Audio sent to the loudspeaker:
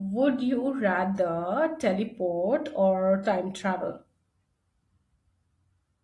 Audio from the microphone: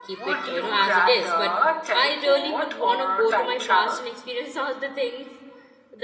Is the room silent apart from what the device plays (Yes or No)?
No